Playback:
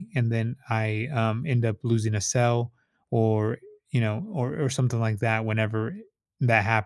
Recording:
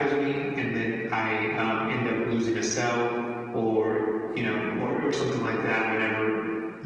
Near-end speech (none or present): none